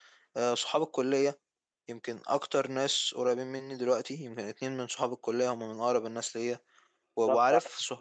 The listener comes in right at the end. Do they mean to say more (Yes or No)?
Yes